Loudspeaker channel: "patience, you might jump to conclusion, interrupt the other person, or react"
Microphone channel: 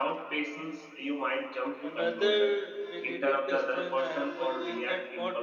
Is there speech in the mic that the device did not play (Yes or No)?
Yes